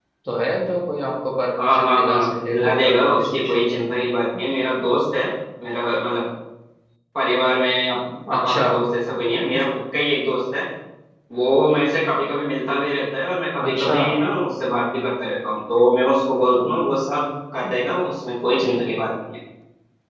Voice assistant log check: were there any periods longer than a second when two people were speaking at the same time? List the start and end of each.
1.6-3.8

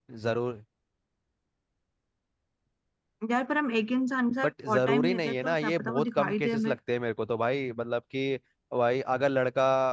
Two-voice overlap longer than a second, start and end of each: 4.6-6.8

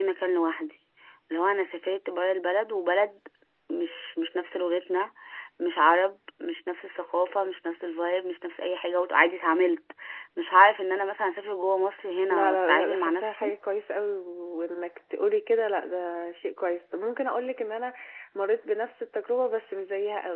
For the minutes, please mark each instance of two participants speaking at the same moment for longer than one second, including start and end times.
12.3-13.5

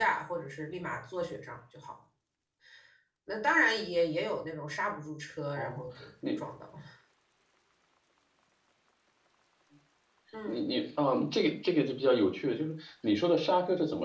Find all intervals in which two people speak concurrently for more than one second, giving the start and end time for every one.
none

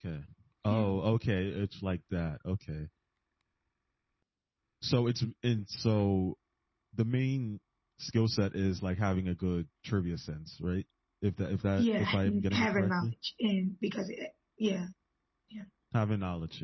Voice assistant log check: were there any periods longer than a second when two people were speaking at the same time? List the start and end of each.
11.8-13.1

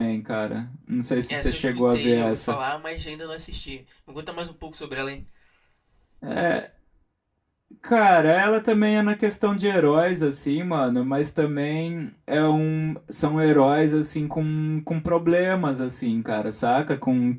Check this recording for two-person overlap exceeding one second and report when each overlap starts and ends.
1.3-2.6

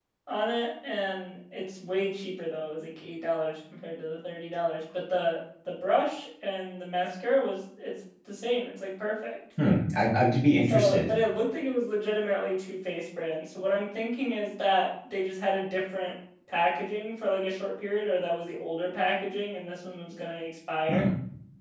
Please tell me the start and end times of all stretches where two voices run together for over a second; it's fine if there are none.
none

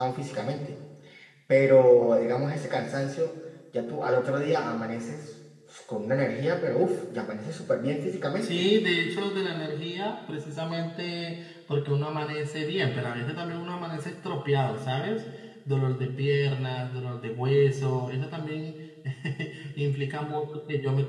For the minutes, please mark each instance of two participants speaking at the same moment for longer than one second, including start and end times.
none

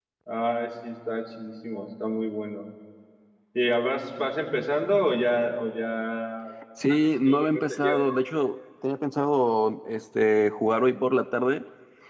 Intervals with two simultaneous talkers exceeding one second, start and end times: 6.9-8.2

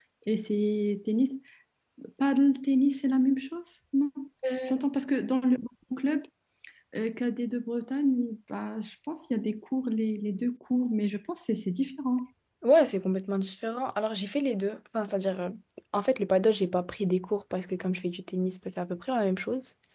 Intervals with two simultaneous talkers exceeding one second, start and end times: none

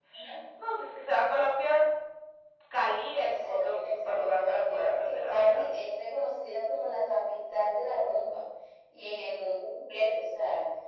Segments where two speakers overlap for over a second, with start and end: 3.2-5.6

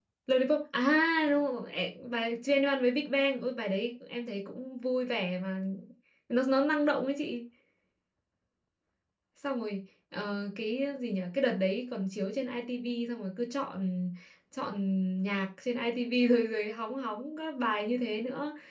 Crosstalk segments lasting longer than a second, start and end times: none

